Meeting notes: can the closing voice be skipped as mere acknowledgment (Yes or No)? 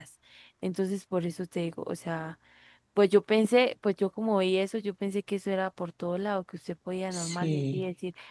Yes